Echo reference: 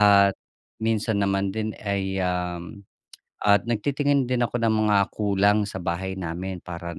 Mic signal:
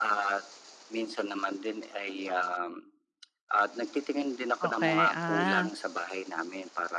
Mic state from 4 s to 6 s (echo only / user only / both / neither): both